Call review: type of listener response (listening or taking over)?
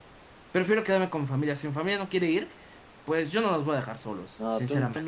taking over